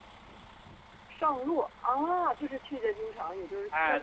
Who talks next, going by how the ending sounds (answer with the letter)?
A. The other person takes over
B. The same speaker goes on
A